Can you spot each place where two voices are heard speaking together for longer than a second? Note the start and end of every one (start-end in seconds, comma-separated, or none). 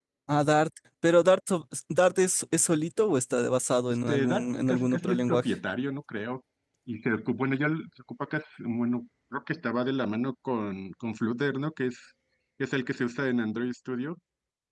3.9-5.5